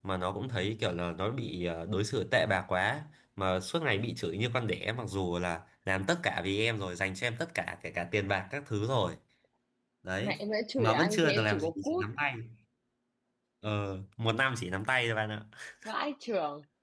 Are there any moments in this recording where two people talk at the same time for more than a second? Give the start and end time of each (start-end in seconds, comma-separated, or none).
10.8-12.0